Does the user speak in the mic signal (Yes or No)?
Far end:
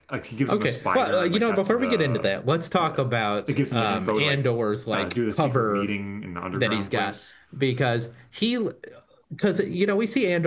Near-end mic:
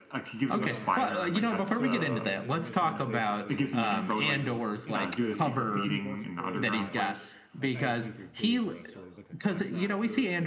Yes